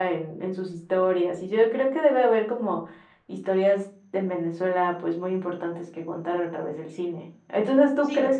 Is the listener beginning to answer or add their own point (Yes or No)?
No